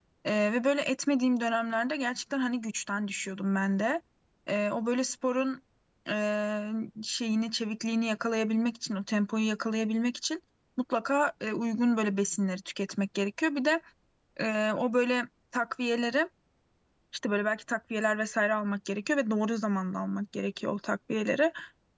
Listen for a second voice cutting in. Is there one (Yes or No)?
No